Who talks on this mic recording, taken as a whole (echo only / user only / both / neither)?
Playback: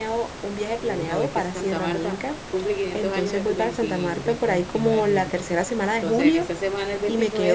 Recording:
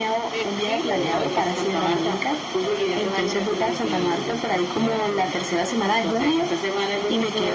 both